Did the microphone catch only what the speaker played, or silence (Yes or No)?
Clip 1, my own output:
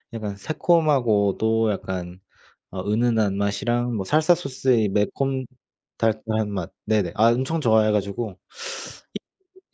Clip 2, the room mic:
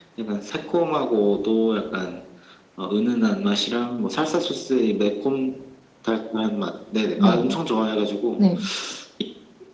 No